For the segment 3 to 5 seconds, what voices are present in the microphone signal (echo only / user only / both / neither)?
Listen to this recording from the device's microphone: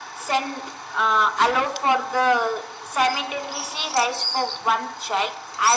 echo only